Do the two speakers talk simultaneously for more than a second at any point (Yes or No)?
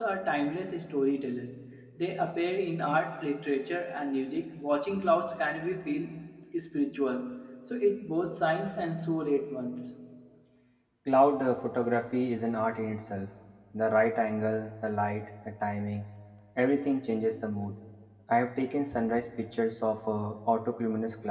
No